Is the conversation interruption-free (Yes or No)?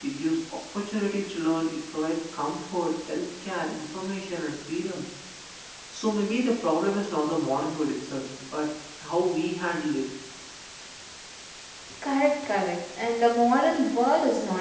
Yes